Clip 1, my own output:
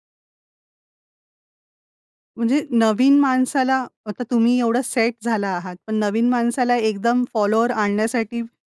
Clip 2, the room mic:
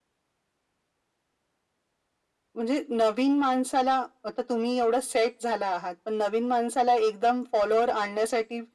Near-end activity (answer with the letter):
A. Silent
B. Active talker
A